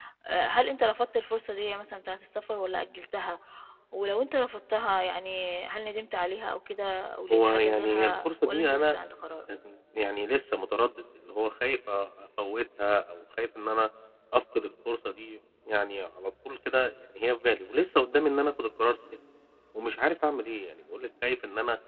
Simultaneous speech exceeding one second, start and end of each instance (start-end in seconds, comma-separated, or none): 7.3-9.0